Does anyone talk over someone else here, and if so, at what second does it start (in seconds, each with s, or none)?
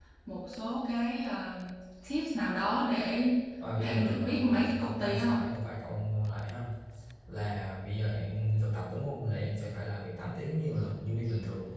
3.8 s